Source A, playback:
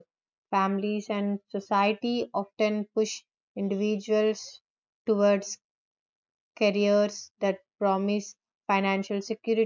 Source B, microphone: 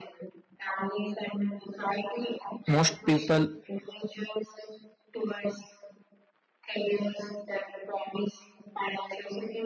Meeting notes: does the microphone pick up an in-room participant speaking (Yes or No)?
Yes